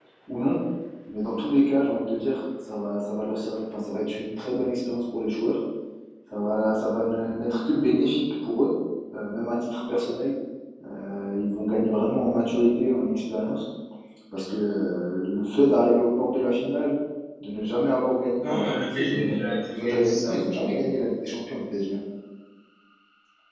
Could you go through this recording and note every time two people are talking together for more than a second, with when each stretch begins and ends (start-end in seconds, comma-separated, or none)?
18.4-20.4